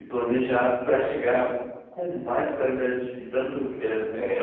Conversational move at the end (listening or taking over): taking over